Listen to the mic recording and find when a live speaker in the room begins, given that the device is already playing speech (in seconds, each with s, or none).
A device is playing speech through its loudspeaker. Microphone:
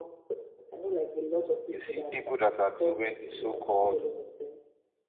1.7 s